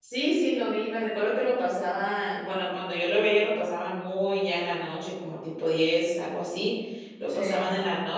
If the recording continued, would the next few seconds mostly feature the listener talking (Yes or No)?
No